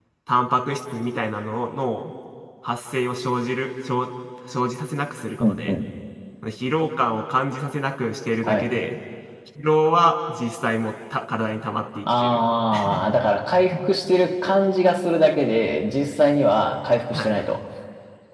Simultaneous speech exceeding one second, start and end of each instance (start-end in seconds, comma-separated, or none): none